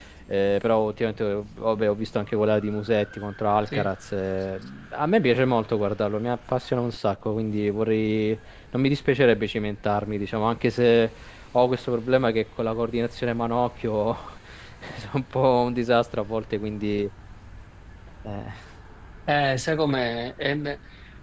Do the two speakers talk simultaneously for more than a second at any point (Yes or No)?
No